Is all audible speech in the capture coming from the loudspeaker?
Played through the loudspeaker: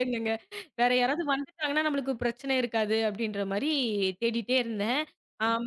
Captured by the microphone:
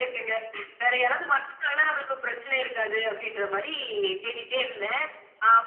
Yes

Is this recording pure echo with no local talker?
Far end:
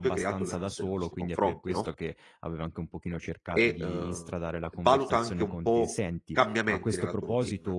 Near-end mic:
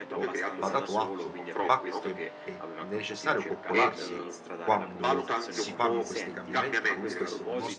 No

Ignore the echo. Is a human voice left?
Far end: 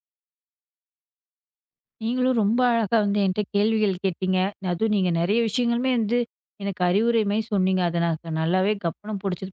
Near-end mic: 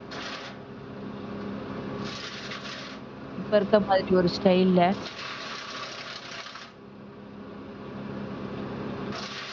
Yes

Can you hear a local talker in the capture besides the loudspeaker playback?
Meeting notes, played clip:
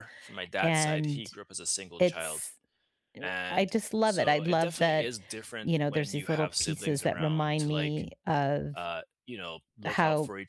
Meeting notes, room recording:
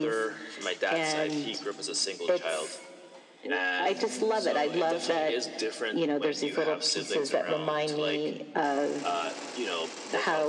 No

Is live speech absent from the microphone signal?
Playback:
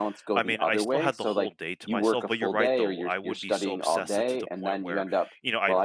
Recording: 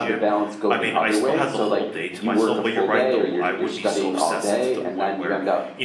Yes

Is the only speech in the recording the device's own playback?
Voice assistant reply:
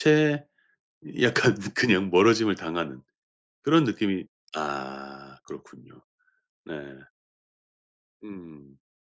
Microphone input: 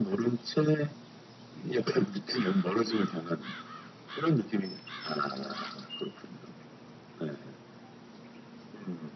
Yes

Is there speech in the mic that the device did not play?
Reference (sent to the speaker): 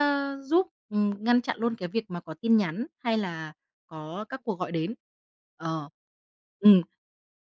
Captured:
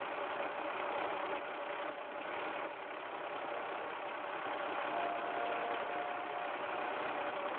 No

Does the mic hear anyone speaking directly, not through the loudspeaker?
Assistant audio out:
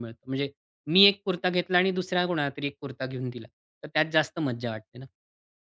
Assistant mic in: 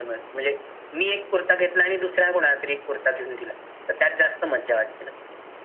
No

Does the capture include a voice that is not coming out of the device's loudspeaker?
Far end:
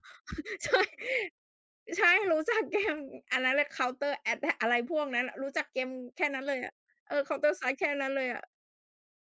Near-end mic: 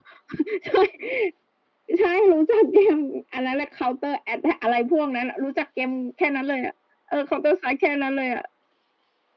No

